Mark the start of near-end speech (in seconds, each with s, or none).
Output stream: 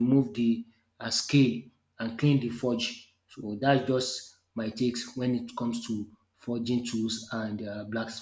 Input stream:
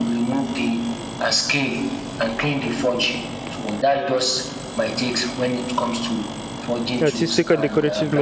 7.0 s